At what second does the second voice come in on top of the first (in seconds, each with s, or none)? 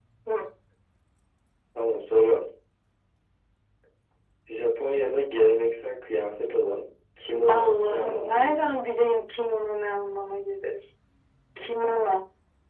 7.5 s